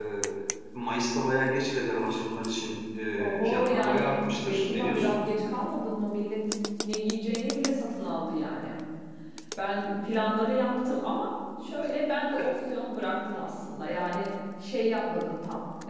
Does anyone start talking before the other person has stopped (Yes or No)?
Yes